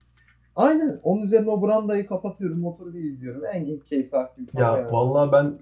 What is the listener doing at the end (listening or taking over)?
taking over